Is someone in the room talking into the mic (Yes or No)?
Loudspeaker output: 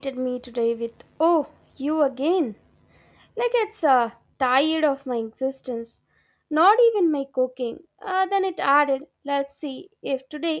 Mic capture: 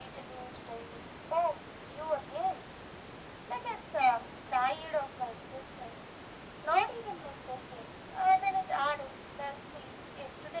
No